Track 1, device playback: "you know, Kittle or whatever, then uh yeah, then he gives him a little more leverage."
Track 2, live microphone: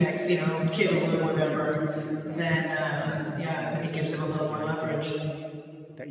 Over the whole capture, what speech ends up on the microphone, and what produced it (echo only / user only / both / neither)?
both